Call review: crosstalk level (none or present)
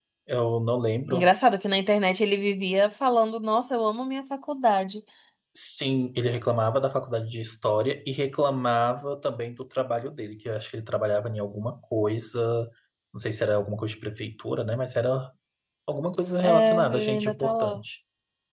present